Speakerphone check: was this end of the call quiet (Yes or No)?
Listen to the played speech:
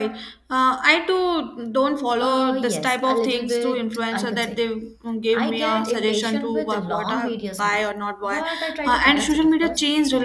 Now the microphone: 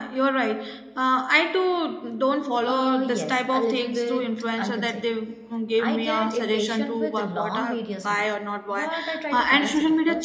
Yes